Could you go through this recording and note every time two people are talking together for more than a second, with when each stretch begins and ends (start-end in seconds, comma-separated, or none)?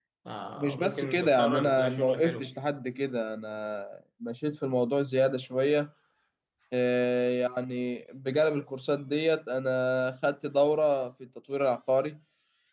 0.6-2.5